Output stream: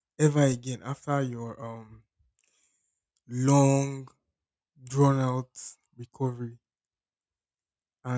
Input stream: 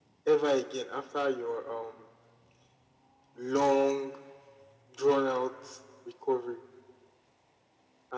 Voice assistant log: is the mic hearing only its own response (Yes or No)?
Yes